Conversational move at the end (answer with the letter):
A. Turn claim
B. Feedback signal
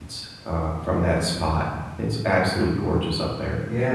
A